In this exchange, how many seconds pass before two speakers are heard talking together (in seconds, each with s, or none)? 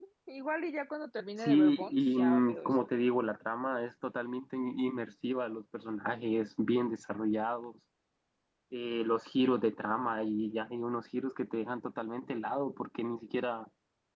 1.4 s